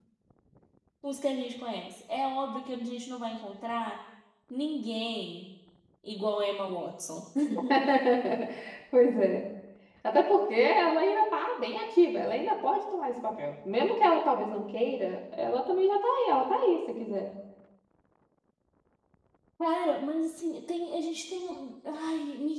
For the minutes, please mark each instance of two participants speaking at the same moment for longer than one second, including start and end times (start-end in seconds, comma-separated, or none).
none